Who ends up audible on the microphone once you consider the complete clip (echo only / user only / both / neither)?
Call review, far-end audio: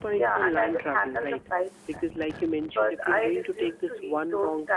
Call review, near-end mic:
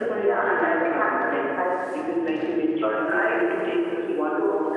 echo only